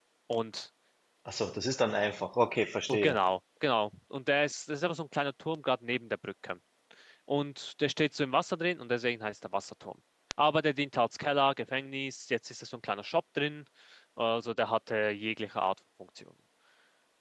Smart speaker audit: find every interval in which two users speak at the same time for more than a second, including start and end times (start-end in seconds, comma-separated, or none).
none